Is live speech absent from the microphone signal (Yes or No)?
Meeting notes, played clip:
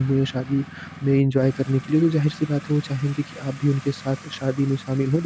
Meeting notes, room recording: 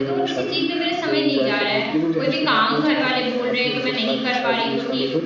No